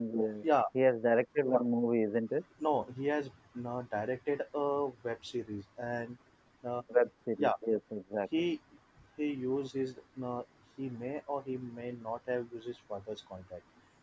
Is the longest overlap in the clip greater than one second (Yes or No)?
No